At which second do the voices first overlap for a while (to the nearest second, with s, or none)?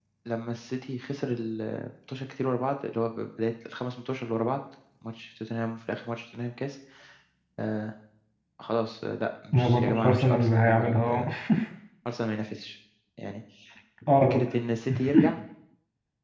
10 s